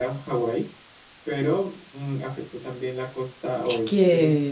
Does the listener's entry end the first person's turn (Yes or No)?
Yes